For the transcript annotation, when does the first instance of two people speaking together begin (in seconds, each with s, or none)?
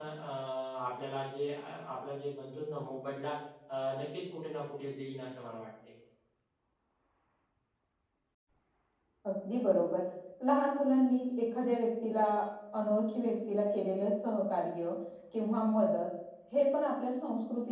none